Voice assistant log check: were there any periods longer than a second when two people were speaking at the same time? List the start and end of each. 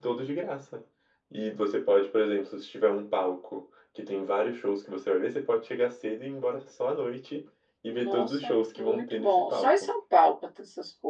7.9-9.9

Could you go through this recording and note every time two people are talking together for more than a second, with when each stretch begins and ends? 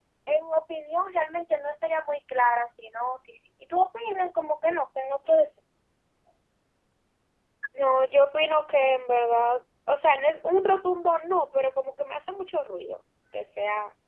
none

